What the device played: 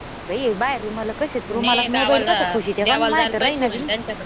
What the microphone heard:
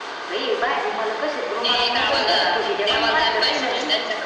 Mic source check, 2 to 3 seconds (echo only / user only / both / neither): echo only